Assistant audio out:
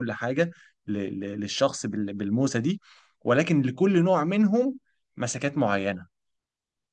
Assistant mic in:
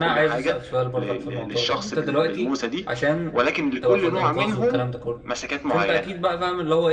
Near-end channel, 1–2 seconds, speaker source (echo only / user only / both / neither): both